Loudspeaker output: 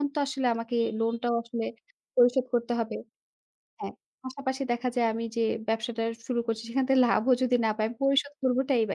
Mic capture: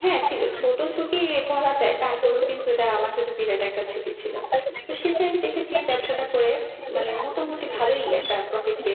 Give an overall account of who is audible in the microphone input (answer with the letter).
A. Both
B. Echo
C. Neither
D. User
A